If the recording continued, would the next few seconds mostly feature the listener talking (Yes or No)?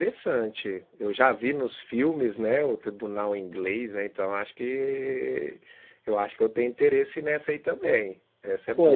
Yes